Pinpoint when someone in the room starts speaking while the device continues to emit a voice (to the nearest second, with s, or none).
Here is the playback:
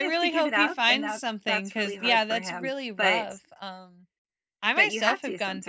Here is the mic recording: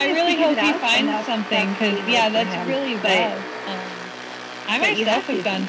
none